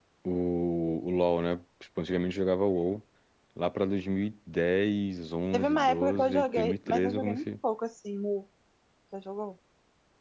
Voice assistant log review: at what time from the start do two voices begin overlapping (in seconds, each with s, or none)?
5.5 s